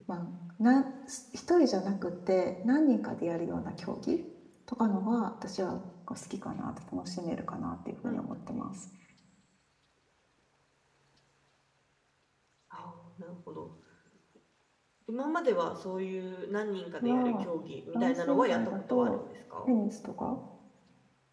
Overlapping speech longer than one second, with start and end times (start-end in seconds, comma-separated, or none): 17.9-19.2